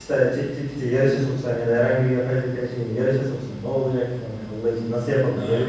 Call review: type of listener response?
taking over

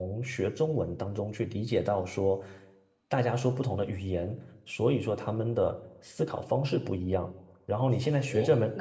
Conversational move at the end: taking over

